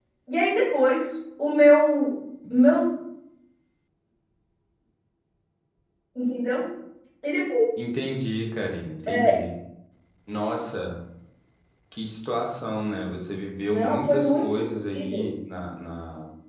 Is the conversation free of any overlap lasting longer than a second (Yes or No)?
No